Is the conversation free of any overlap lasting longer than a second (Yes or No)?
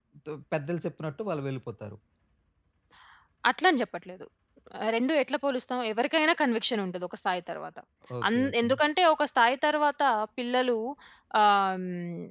Yes